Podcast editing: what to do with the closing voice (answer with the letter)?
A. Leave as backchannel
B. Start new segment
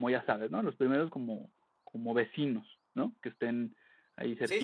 B